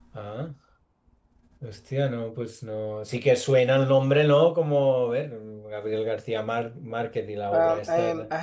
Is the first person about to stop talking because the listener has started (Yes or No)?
Yes